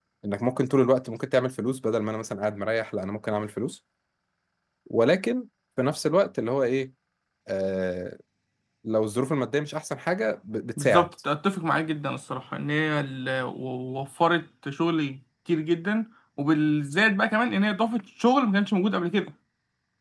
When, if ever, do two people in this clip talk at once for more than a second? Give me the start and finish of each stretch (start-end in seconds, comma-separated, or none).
none